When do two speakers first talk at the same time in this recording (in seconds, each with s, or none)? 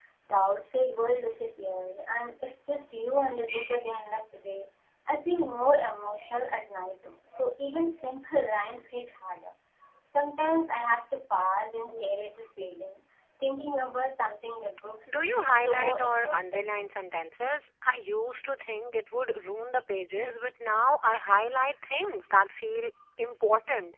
15.1 s